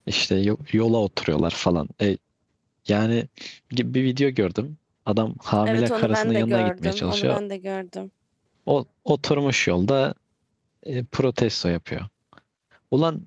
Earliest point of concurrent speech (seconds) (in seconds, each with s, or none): 5.6 s